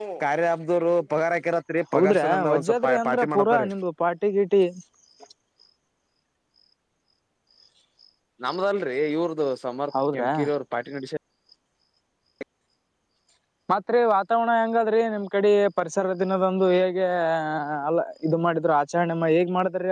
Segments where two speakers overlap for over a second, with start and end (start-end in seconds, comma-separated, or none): 1.9-3.7